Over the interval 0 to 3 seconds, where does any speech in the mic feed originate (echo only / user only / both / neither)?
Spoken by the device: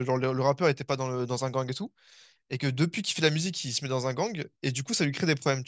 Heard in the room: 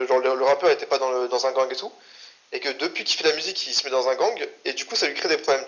echo only